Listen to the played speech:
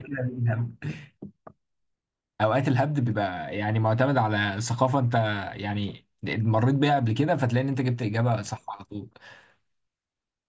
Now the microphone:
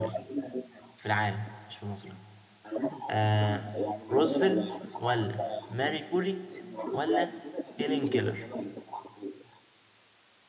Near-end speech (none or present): present